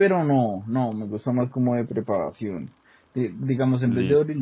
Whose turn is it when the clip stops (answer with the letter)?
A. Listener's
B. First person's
B